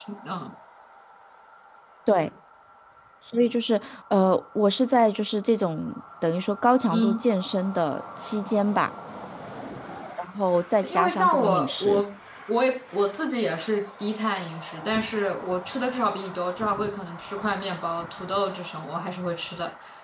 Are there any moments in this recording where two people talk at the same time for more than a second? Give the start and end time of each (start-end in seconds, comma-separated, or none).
10.8-12.0